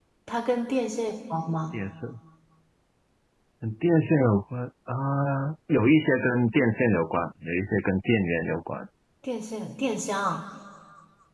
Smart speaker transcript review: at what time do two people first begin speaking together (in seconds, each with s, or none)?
none